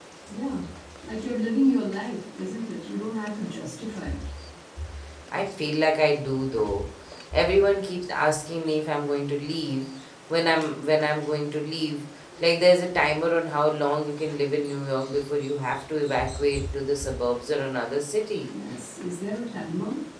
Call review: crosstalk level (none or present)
none